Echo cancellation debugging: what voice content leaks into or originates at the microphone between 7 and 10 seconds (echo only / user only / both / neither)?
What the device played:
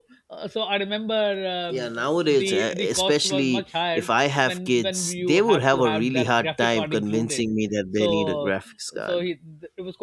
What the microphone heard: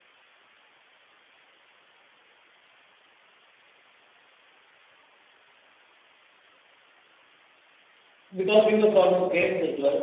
user only